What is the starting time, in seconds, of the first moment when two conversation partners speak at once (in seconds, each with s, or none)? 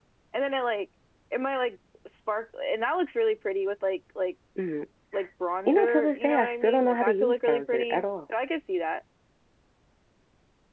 5.7 s